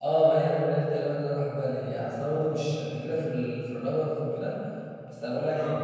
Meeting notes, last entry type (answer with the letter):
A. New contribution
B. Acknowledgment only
B